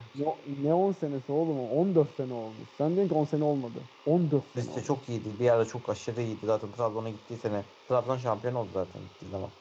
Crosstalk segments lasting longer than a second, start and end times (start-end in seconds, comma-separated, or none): none